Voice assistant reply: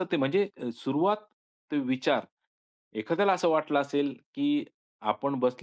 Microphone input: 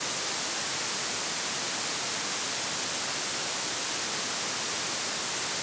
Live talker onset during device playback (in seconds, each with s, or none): none